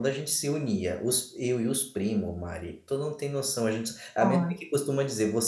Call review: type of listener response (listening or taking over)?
listening